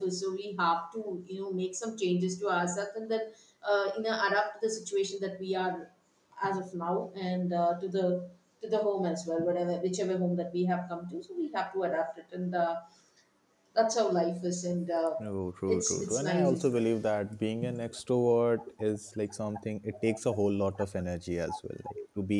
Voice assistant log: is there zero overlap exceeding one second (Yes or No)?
No